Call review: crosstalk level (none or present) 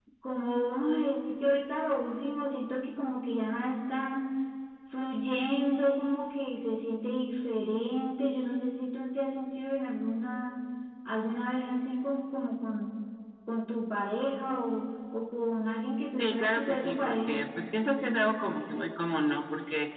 present